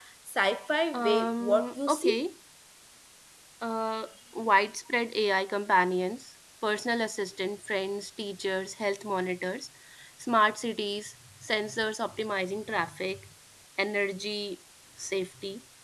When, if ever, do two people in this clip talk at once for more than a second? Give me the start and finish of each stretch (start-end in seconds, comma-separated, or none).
0.9-2.2